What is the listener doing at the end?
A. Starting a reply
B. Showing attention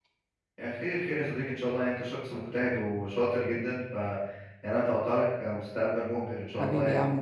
A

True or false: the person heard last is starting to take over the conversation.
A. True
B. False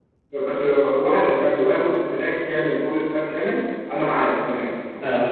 B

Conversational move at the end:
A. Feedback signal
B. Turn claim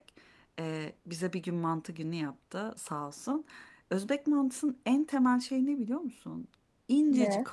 A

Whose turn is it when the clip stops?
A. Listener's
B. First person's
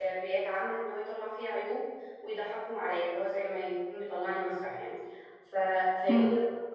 B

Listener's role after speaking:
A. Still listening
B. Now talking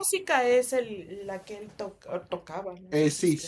B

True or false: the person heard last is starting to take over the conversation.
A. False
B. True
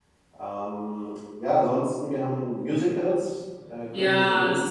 B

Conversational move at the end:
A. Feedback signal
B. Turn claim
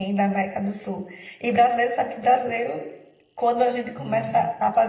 A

